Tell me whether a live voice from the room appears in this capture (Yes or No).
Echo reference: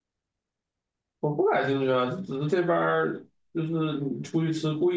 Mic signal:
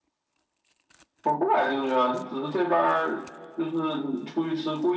No